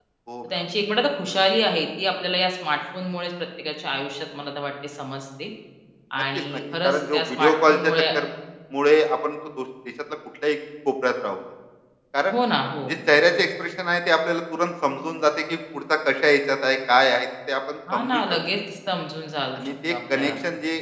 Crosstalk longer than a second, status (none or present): present